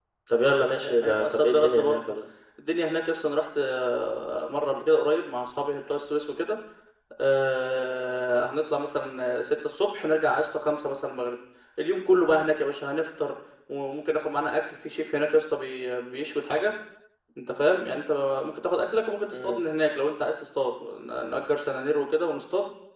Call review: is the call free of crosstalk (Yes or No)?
No